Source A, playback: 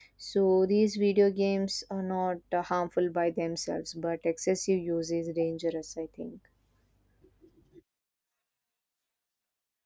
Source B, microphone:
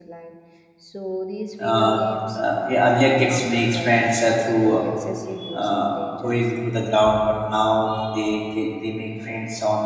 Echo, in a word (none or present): present